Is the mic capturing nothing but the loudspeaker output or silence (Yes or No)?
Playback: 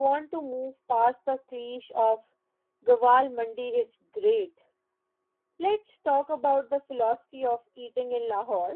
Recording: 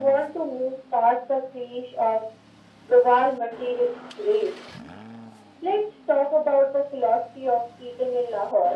Yes